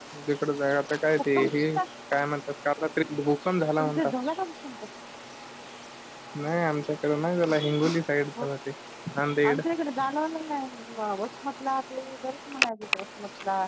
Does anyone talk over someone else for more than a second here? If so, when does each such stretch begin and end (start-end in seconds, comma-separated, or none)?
none